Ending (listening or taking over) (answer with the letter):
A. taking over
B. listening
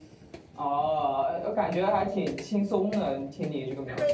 A